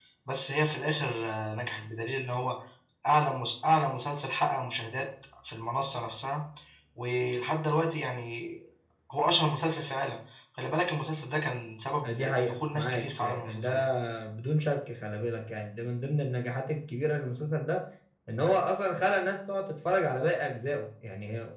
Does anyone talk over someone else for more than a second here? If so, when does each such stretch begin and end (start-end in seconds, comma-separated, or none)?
12.0-13.9